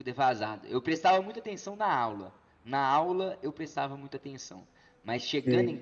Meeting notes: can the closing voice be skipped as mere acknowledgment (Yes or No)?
Yes